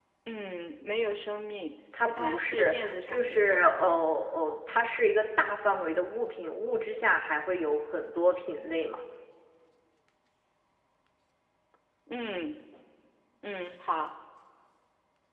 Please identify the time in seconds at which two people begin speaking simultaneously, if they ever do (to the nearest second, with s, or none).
2 s